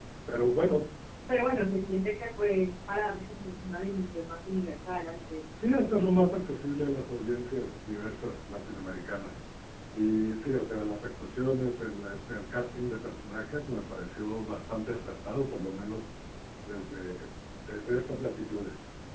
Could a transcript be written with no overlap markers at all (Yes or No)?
Yes